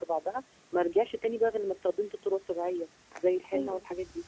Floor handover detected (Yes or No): Yes